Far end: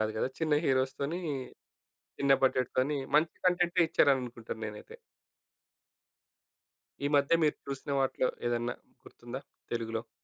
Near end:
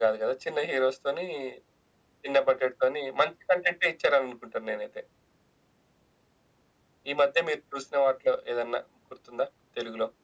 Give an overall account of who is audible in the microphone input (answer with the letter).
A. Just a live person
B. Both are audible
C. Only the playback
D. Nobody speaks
C